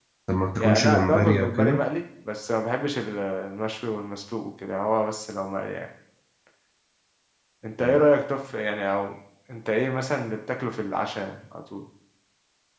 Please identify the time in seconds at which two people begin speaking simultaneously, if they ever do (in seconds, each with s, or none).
0.6 s